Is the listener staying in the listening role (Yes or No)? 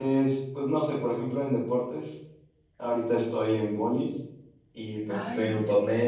Yes